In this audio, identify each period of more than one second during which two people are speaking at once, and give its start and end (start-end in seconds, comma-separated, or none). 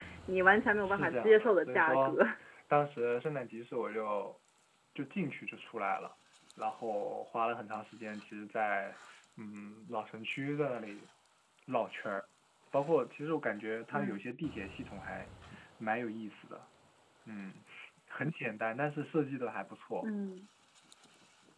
0.8-2.2